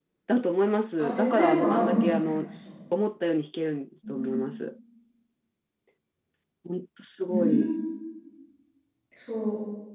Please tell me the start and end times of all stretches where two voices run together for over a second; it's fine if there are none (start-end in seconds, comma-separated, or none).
1.0-2.5